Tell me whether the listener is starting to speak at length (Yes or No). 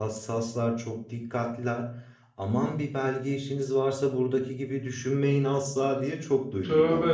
Yes